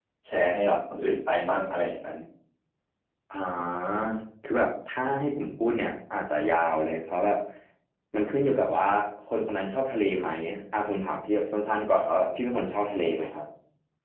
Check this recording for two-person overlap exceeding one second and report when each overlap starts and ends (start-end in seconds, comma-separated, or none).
none